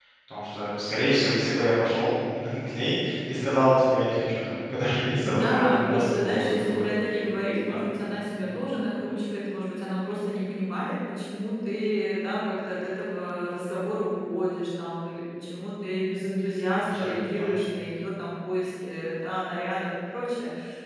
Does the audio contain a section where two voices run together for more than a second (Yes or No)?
Yes